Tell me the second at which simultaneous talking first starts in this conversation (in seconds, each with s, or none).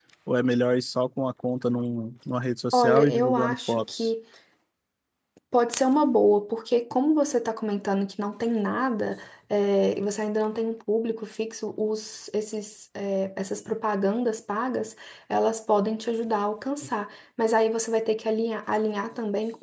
2.7 s